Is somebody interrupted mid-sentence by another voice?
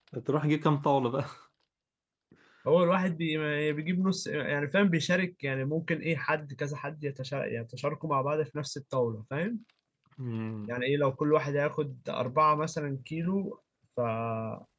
No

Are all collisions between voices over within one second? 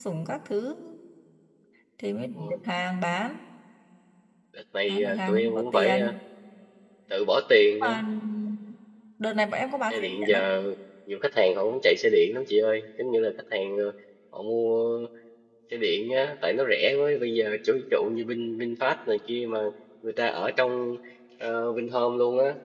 No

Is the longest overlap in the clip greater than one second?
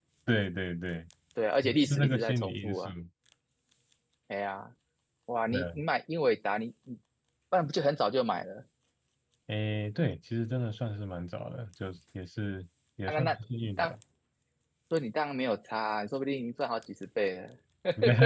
Yes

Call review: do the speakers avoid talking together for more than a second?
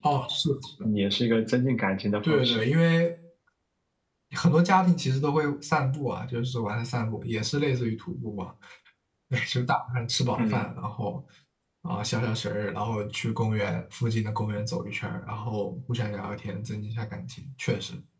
Yes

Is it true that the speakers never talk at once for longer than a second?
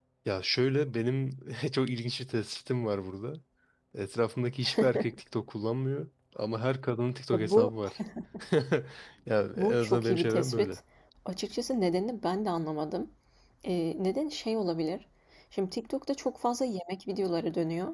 No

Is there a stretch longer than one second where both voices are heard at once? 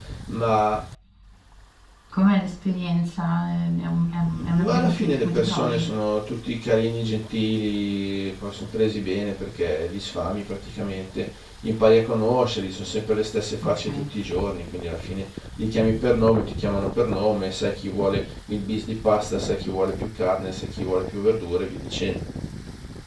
Yes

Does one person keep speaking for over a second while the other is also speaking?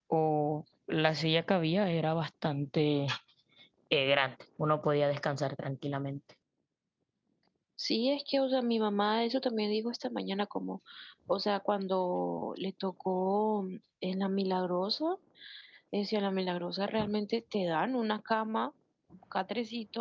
No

